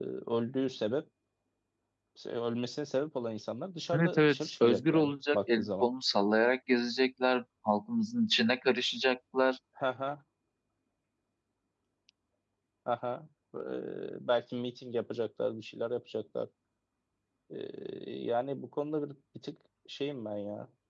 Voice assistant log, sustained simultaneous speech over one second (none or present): present